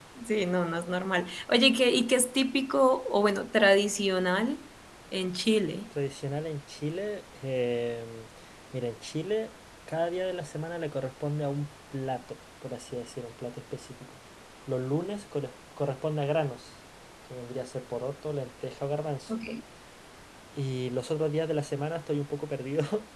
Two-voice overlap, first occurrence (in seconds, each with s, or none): none